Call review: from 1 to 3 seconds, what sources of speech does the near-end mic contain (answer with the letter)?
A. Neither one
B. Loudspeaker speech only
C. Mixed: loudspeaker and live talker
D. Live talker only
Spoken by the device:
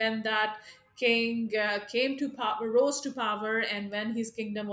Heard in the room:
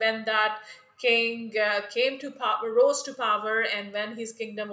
B